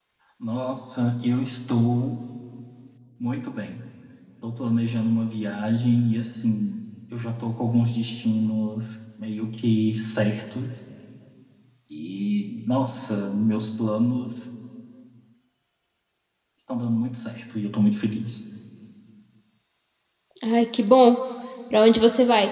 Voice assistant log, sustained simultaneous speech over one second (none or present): none